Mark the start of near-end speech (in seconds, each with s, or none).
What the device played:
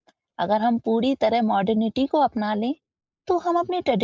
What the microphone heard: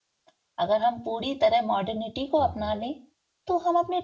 2.4 s